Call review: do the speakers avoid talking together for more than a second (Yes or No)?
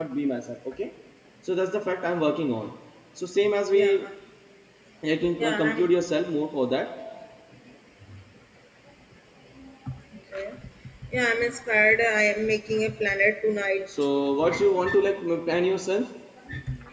Yes